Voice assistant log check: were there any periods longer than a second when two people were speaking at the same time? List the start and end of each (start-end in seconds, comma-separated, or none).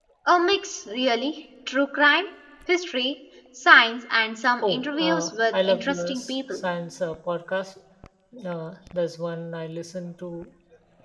4.6-6.6